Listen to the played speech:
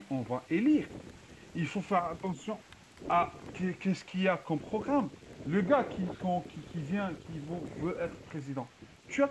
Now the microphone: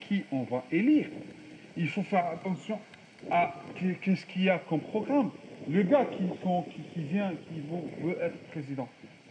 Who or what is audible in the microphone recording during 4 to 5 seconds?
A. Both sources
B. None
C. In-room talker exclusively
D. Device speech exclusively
D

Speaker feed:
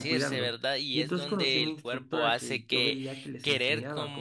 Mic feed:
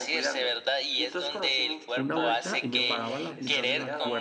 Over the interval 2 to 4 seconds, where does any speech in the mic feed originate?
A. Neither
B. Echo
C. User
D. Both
D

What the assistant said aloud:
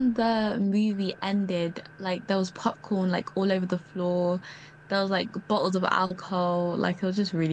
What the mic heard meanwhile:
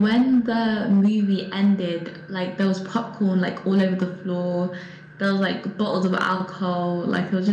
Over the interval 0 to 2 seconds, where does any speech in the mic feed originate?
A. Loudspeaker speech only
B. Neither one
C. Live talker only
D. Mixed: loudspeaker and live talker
A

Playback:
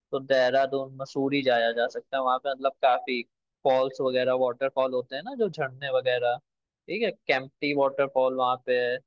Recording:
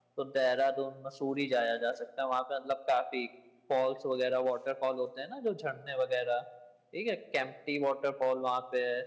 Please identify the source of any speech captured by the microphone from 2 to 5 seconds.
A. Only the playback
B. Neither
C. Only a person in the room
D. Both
A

